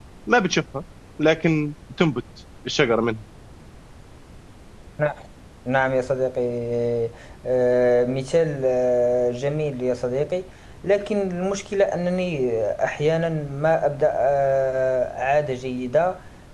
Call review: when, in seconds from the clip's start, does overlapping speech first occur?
none

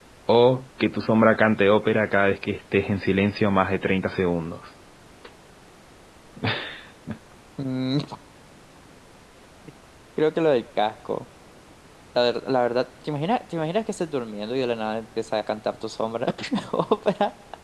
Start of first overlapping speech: none

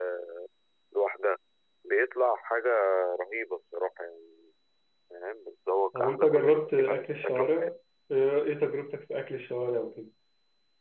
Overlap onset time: 6 s

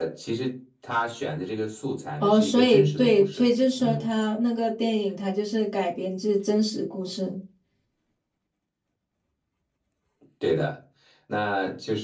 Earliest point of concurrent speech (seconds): 2 s

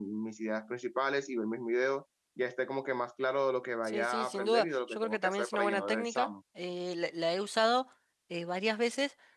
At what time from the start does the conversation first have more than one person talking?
4 s

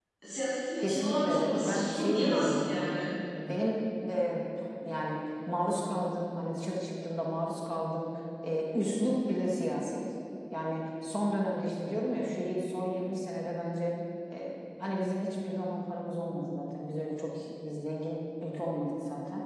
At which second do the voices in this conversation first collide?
1 s

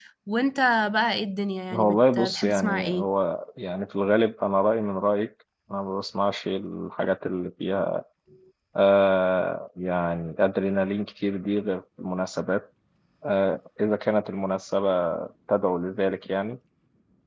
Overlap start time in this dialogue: 2 s

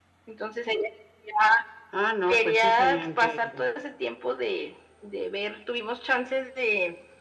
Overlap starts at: 2 s

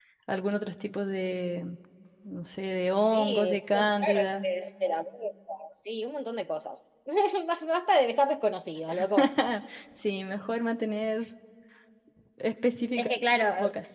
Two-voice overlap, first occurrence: 3 s

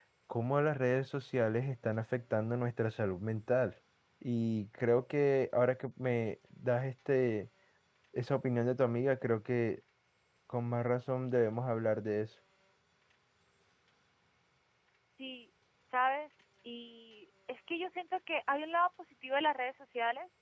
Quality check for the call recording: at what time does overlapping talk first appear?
none

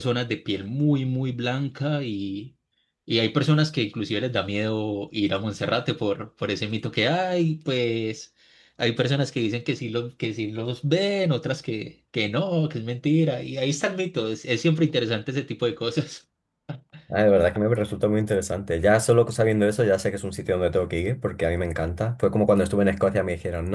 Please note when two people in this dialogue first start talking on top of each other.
none

